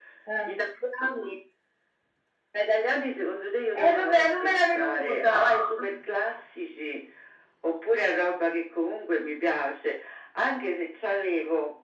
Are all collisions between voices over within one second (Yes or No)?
No